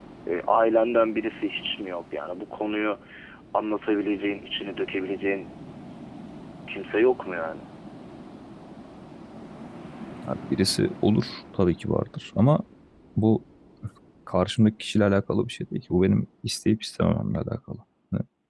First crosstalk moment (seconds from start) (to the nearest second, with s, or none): none